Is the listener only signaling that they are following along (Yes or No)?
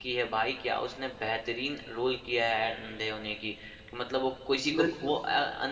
Yes